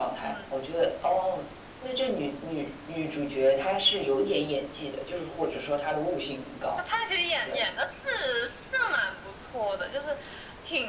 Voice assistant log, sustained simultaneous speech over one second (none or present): none